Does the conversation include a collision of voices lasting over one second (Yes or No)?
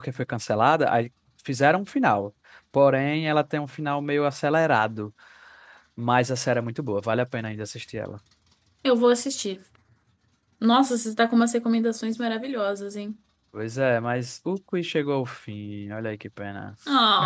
No